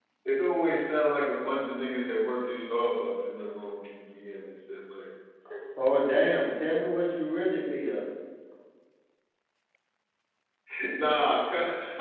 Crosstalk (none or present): none